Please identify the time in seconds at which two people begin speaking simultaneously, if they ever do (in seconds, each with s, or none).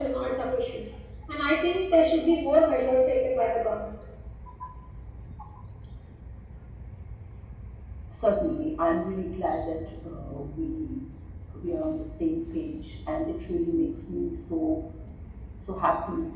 none